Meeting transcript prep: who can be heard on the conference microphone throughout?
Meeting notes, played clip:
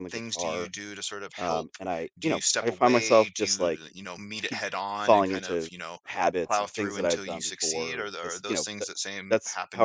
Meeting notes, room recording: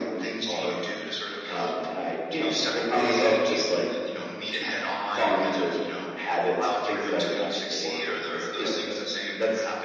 echo only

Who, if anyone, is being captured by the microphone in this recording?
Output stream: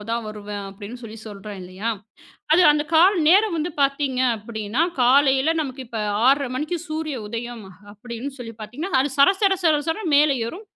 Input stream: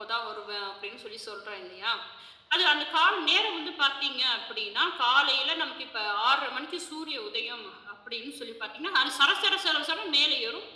echo only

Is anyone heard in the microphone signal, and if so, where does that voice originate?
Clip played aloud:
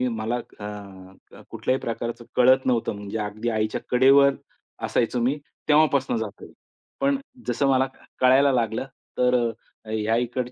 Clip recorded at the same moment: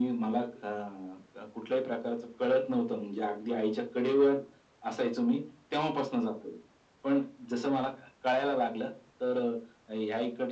echo only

